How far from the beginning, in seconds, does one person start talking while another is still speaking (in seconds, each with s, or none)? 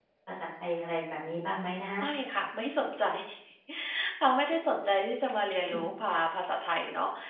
none